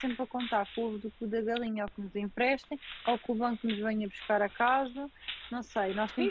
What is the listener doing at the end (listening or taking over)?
taking over